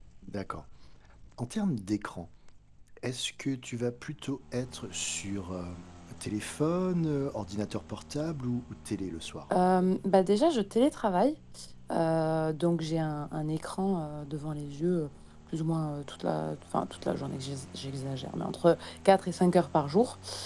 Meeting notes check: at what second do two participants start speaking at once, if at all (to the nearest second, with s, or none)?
none